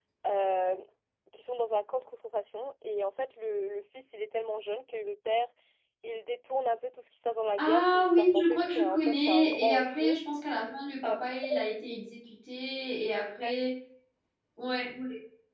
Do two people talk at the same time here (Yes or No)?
Yes